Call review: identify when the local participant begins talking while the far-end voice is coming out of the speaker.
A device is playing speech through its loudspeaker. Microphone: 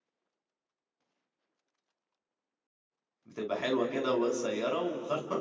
3.2 s

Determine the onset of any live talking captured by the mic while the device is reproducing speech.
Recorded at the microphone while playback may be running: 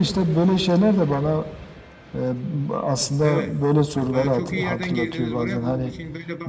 3.2 s

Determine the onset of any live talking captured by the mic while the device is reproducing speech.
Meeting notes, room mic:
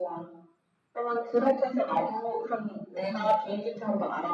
3.1 s

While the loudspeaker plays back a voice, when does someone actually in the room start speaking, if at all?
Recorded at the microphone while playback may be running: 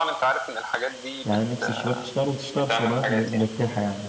1.2 s

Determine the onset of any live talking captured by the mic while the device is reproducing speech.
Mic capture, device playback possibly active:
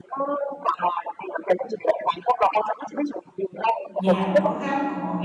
4.0 s

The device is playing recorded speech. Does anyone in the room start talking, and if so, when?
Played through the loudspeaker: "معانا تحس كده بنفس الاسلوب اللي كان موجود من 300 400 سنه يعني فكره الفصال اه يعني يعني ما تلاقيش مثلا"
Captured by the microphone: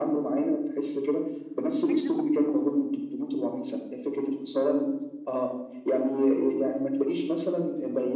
1.8 s

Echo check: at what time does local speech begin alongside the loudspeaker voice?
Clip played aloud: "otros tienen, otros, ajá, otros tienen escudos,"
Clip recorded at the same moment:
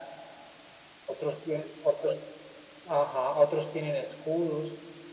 none

